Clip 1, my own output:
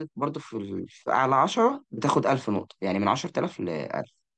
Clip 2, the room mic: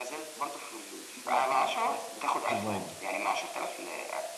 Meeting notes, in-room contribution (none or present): present